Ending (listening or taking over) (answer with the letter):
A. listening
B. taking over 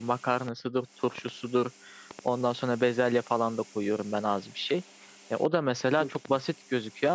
A